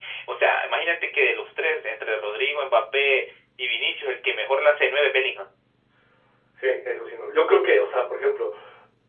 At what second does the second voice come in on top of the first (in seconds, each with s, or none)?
none